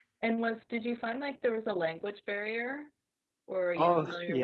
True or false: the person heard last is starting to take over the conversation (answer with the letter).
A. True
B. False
A